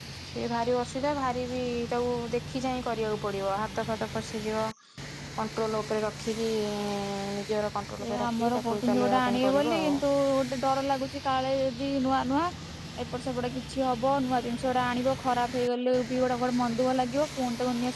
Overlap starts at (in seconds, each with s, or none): 8.0 s